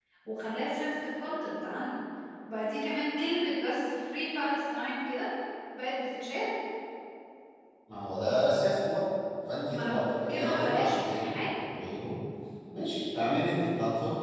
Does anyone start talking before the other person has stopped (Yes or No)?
Yes